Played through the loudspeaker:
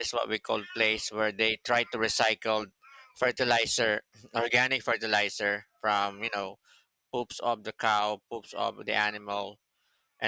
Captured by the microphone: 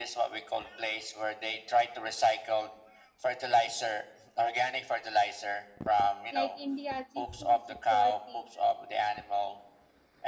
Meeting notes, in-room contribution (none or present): present